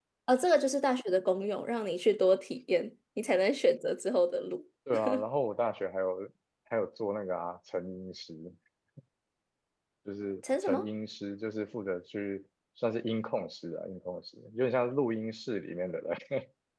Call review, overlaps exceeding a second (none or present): none